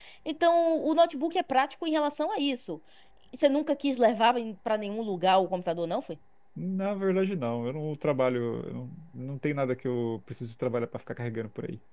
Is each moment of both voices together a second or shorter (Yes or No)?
Yes